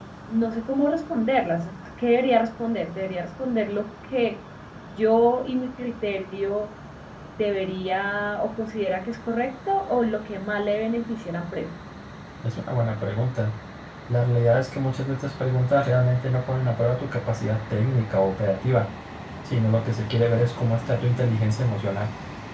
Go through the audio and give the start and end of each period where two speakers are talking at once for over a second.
none

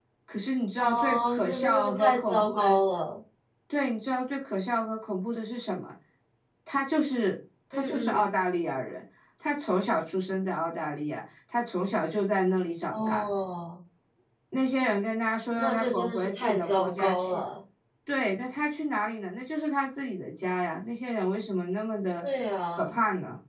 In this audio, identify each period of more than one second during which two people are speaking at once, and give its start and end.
0.8-2.8, 15.6-17.4

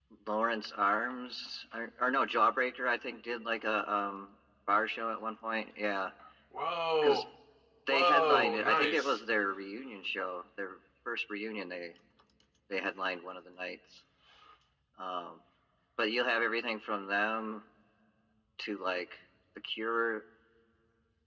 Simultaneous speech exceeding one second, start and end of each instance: 7.9-9.2

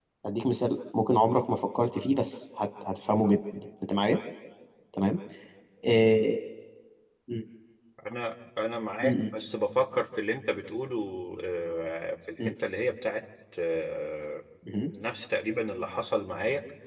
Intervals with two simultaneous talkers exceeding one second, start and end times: none

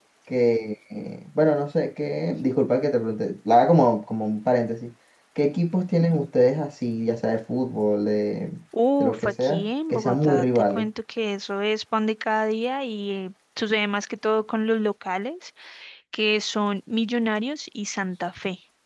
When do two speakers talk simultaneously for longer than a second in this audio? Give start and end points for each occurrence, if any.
9.0-10.9

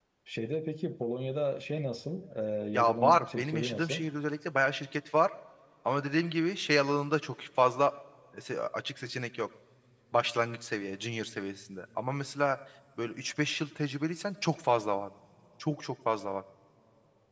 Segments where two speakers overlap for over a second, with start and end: 2.7-4.0

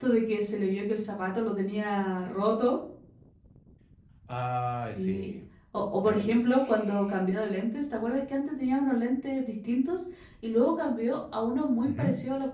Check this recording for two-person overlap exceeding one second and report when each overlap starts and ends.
none

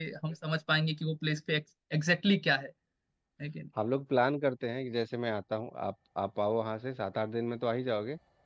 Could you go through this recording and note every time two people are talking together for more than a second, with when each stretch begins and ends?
none

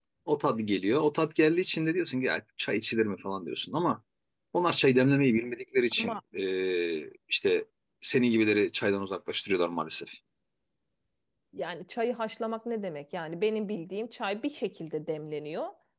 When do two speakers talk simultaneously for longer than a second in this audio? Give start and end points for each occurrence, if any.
none

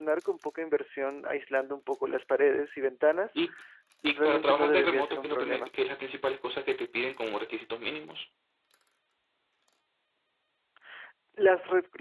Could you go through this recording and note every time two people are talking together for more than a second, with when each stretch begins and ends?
4.0-5.7

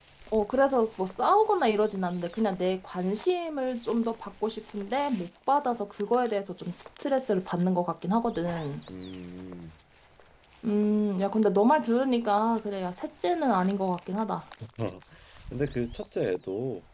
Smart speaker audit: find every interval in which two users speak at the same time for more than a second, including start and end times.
none

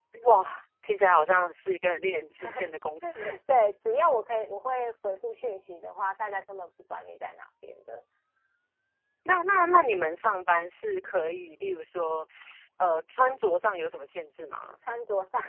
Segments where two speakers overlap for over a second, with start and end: none

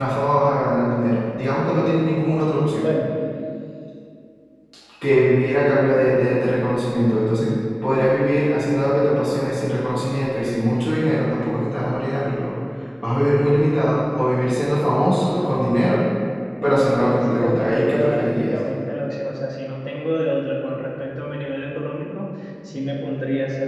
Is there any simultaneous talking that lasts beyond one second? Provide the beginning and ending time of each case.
16.6-18.6

